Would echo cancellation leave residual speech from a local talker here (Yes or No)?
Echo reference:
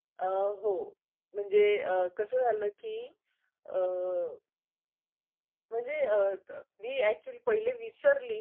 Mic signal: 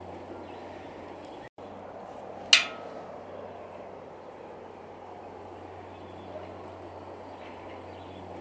No